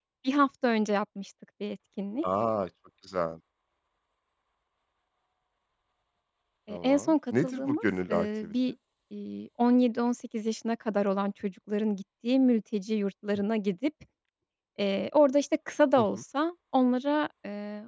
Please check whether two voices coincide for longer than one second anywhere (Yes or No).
Yes